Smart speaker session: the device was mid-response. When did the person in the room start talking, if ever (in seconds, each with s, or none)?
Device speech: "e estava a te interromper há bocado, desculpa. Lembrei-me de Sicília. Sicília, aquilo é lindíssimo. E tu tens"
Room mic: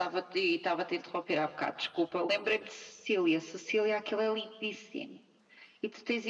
none